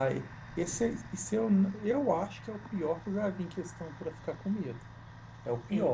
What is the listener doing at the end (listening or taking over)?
listening